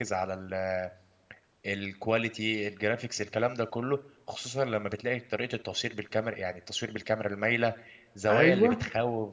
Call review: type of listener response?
listening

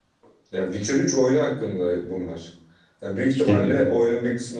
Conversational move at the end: listening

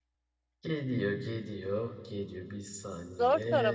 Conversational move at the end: taking over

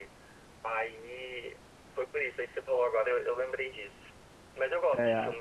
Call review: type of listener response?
listening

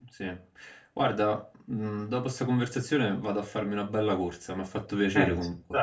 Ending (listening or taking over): taking over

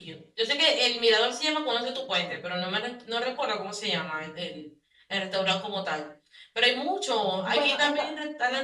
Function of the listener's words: listening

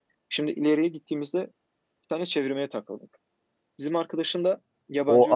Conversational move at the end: taking over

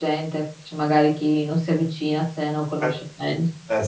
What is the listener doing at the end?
taking over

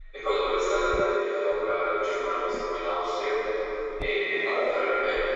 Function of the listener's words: listening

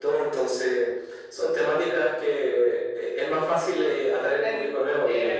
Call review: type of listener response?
taking over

